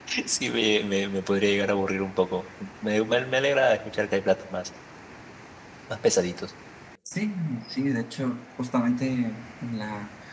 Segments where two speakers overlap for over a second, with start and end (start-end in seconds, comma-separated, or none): none